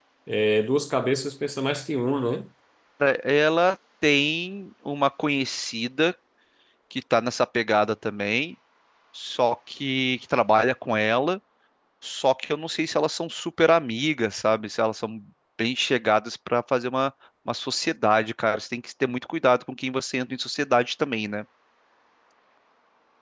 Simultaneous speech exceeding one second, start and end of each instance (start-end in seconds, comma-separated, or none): none